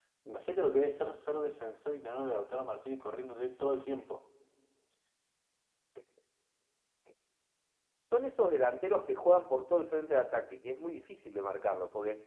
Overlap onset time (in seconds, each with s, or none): none